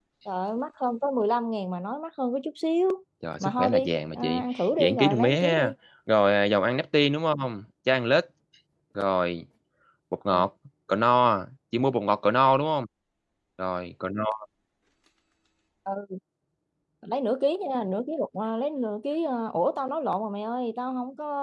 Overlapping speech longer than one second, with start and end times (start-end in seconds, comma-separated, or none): 3.4-5.7